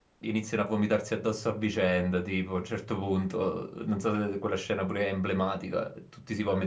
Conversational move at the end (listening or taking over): listening